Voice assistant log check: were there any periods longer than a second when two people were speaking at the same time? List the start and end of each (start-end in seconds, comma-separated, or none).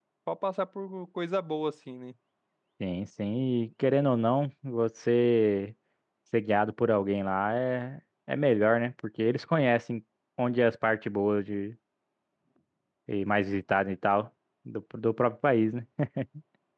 none